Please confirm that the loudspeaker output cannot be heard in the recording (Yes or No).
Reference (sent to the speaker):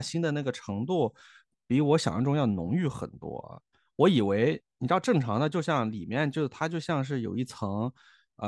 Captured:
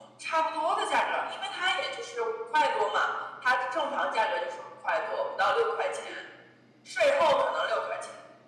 Yes